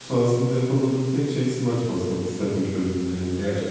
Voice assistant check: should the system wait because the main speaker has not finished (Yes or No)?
No